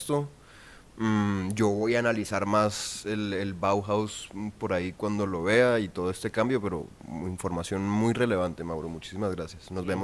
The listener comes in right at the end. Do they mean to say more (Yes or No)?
Yes